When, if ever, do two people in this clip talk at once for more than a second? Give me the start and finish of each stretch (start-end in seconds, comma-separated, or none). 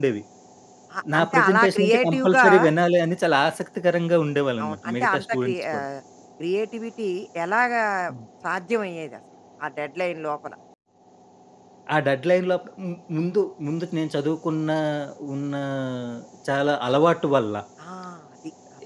1.1-2.5, 4.6-5.8